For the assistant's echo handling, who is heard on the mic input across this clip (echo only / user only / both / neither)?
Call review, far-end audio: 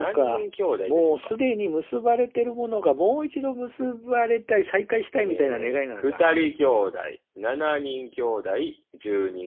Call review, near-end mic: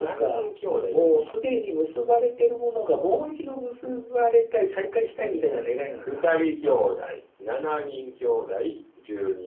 echo only